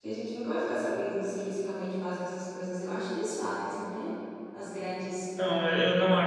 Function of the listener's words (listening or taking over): taking over